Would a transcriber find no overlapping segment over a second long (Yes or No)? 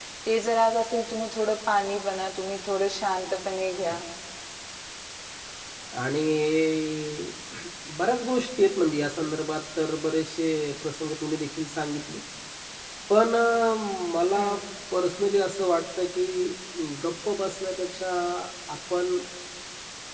Yes